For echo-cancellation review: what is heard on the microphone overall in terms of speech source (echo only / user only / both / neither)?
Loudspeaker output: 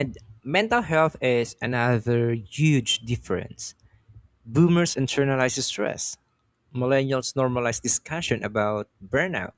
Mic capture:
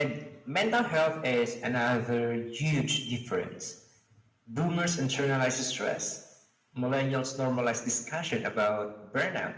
echo only